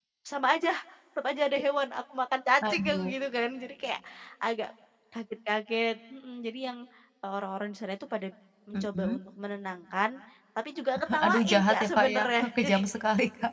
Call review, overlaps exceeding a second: present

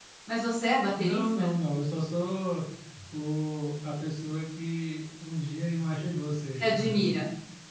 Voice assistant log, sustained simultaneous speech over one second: none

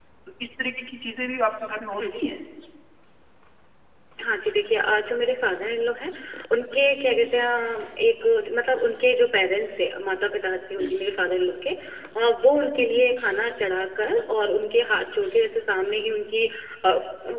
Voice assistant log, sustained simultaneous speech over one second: none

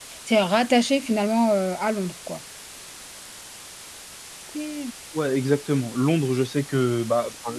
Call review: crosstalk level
none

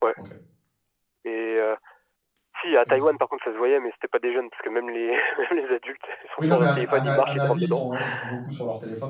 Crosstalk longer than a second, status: present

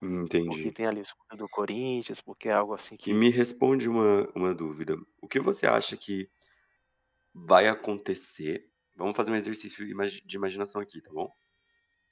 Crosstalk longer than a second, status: none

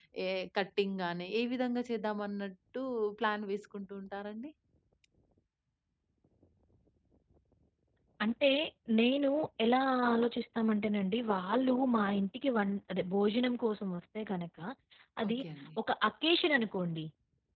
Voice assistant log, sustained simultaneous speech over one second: none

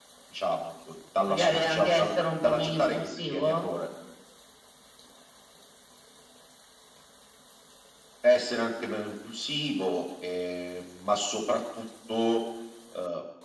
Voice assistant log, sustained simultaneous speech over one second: present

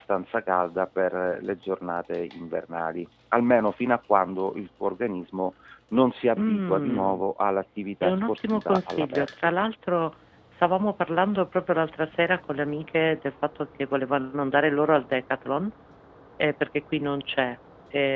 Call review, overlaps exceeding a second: present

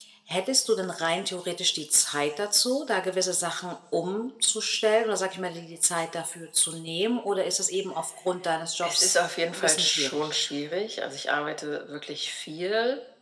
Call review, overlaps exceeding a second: present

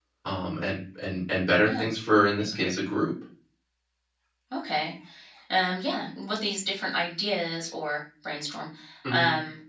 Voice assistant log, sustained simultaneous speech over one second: none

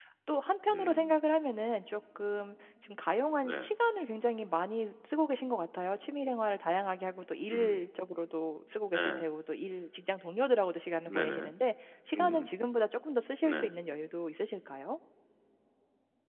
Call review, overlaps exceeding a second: none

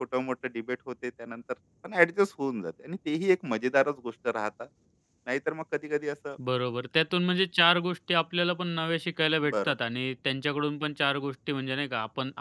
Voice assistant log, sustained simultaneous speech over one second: none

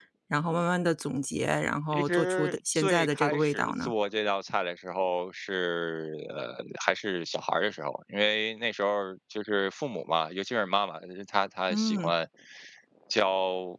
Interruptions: present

